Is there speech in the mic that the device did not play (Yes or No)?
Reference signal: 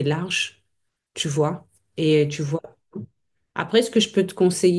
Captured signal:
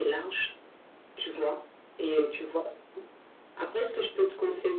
No